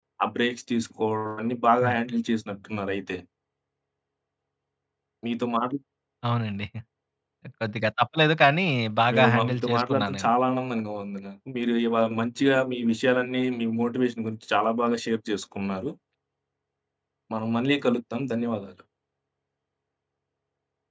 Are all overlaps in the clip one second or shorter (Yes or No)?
No